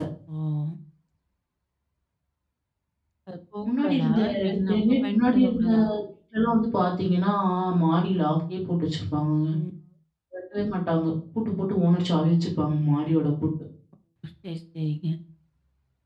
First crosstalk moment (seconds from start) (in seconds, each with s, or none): 3.8 s